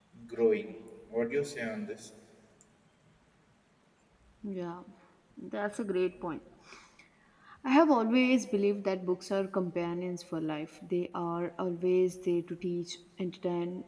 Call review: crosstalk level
none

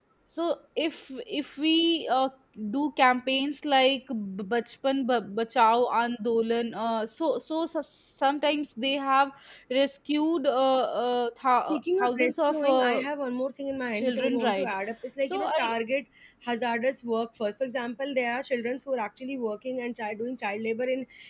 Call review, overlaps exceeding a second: present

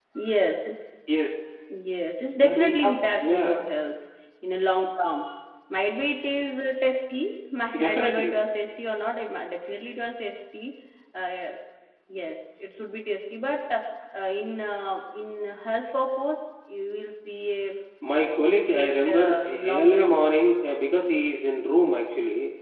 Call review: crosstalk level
present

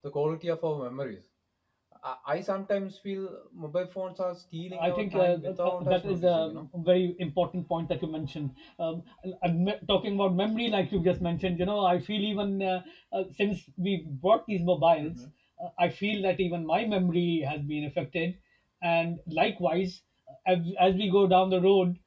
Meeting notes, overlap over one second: present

